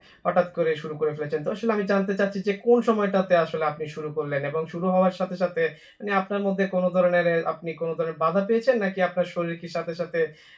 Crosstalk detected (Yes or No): No